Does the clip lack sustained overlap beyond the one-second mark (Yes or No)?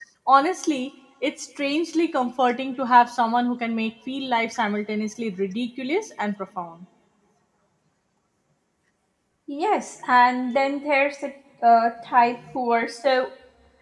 Yes